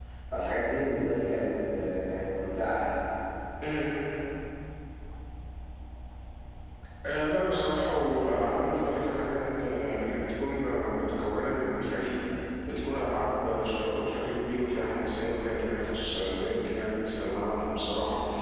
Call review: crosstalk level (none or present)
none